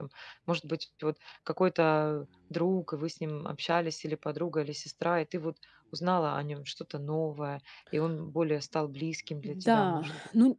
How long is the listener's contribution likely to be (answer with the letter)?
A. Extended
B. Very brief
A